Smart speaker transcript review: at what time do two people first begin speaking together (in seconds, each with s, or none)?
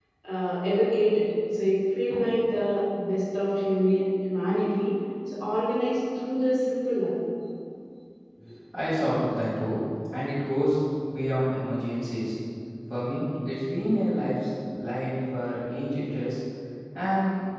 none